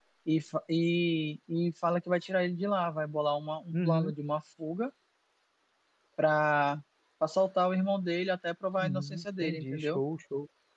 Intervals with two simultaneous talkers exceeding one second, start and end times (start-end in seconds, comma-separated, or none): 8.8-10.0